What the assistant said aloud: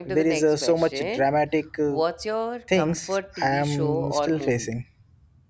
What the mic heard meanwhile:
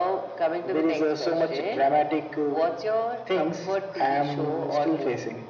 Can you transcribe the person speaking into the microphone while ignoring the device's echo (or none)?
none